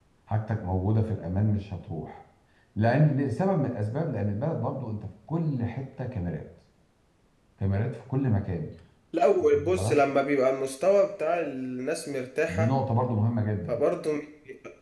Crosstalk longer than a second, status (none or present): none